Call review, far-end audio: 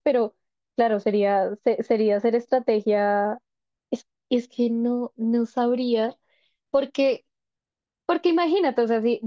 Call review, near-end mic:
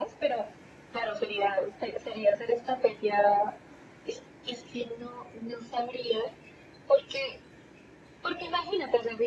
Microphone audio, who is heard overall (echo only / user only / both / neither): echo only